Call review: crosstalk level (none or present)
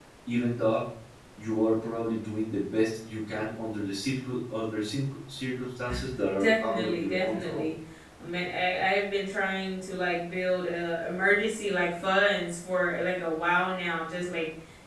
present